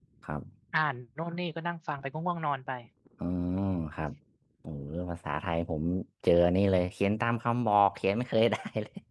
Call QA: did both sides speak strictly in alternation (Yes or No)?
Yes